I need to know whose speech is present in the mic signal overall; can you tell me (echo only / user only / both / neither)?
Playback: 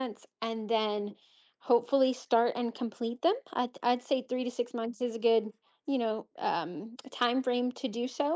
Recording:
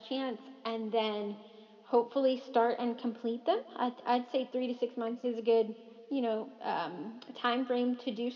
echo only